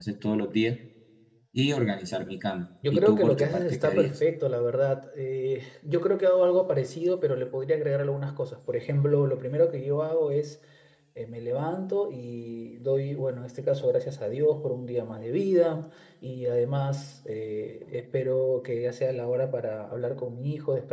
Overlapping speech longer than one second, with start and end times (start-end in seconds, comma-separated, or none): 2.9-4.2